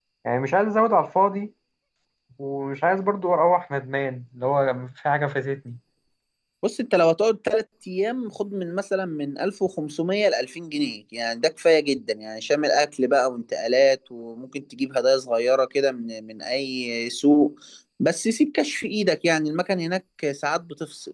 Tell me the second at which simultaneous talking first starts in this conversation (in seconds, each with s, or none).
none